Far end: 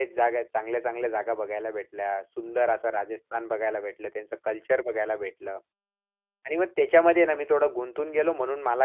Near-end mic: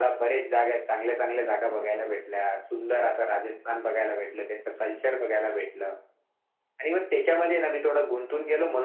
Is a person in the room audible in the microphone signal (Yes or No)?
No